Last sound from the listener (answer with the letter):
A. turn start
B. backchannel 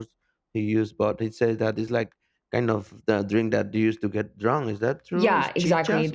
A